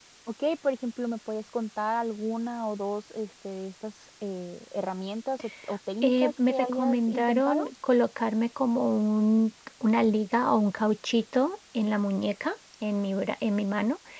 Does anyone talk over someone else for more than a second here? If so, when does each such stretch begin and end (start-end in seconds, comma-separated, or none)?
6.0-7.6